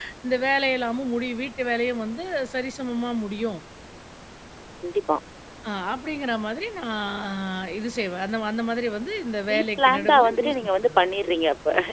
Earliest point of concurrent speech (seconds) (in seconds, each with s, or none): 9.5 s